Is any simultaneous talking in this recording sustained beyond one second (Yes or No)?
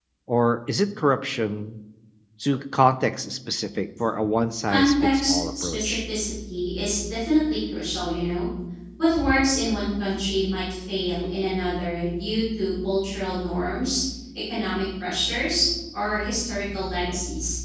Yes